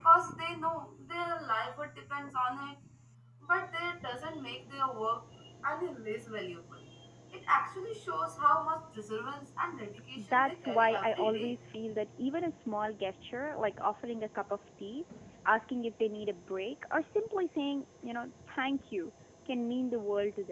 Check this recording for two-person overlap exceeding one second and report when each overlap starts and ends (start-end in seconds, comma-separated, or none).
10.2-11.6